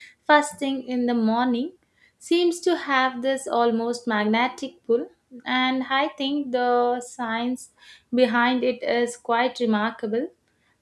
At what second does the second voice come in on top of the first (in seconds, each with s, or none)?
none